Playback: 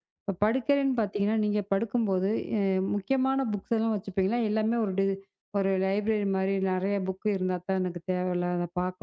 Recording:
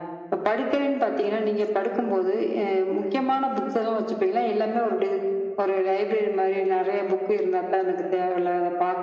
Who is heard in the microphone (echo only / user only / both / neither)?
echo only